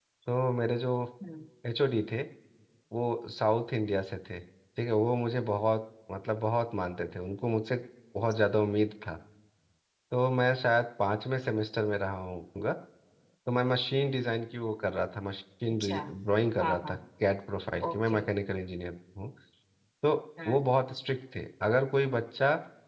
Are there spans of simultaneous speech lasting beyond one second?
No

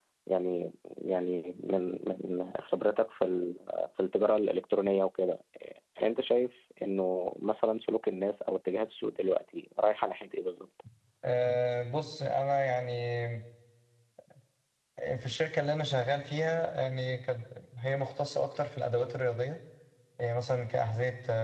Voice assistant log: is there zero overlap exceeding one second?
Yes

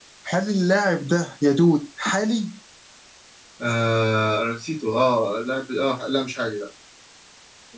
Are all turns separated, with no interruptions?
Yes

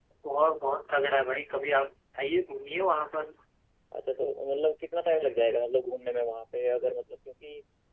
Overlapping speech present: No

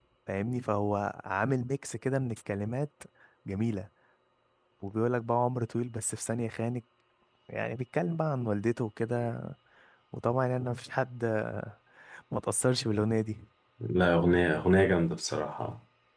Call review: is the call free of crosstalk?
Yes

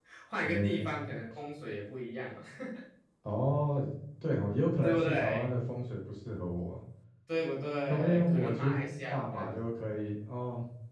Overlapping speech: Yes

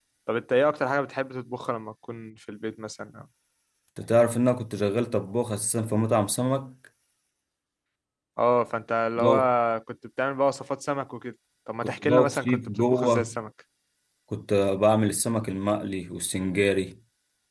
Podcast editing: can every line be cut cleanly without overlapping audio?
No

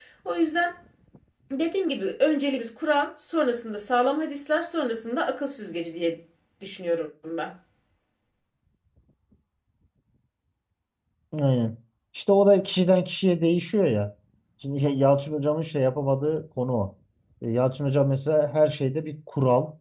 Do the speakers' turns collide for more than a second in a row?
No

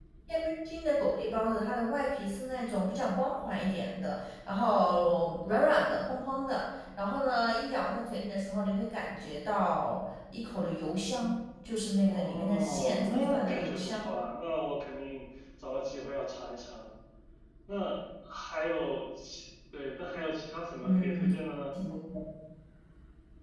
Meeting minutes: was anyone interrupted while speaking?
Yes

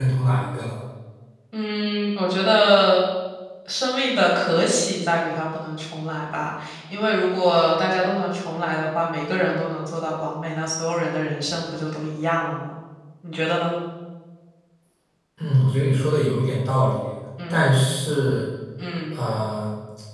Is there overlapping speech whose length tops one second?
No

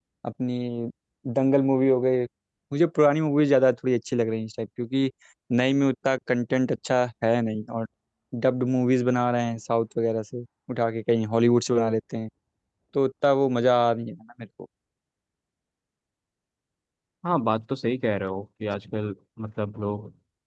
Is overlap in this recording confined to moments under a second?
Yes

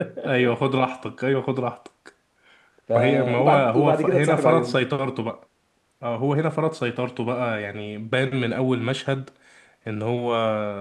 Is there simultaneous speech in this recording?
Yes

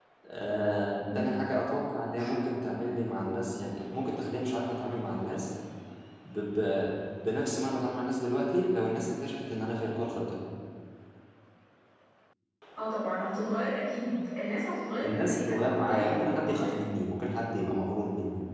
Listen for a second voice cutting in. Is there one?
Yes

